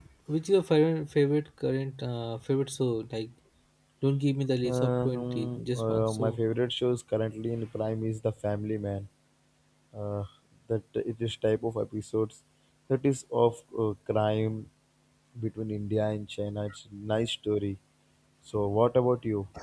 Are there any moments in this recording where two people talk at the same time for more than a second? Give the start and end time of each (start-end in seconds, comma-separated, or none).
4.6-6.4